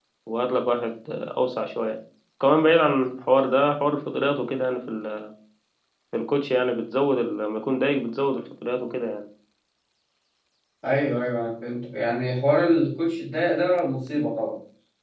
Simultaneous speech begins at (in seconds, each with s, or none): none